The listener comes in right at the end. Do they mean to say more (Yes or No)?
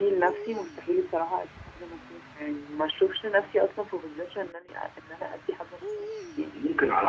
Yes